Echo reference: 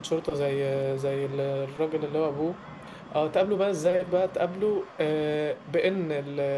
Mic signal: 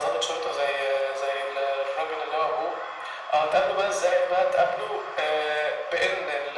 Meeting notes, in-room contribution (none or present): none